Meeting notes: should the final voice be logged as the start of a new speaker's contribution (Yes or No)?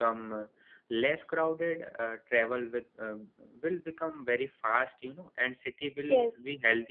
No